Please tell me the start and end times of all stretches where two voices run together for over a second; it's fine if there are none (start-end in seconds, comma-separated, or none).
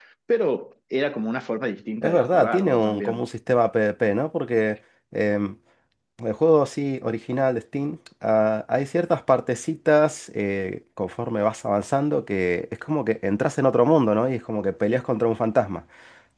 2.0-3.2